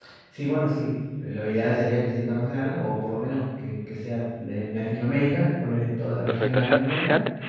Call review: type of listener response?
taking over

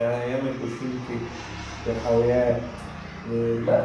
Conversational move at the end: taking over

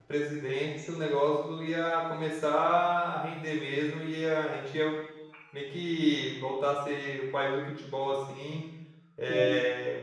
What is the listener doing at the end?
listening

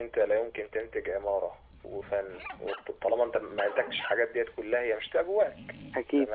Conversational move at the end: listening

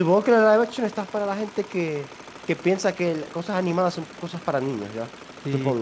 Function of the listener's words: taking over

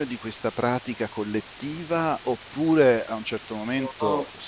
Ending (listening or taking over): listening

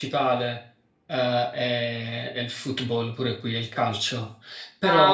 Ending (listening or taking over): listening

